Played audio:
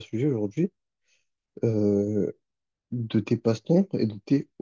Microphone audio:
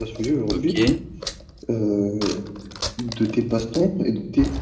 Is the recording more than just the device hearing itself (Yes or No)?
Yes